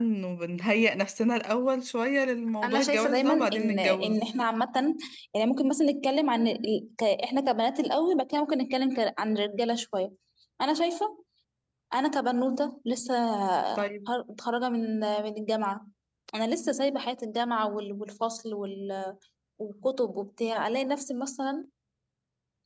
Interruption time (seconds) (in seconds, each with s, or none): 2.6 s